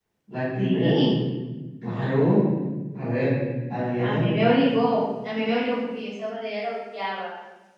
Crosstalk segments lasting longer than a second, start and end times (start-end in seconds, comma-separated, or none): none